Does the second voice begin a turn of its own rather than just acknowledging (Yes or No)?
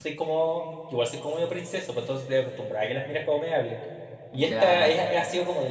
No